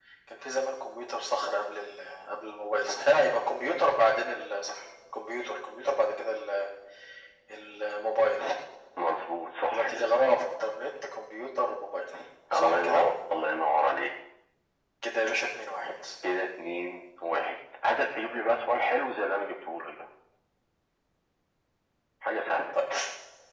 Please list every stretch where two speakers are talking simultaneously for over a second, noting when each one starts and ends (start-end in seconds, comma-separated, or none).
none